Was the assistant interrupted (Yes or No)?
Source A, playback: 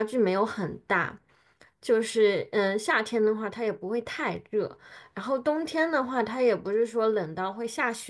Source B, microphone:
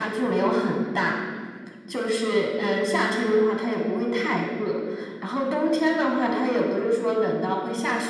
No